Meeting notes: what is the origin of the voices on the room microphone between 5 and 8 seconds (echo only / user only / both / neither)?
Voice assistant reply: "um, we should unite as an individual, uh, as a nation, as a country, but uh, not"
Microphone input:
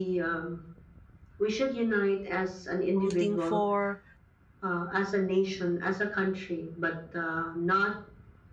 echo only